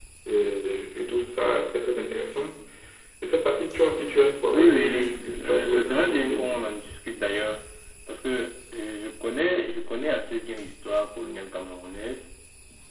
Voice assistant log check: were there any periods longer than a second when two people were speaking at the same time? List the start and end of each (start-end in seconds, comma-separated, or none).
4.4-6.6